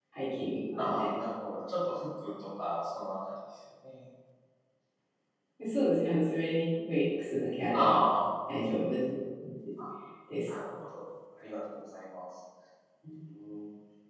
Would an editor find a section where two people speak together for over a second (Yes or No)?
No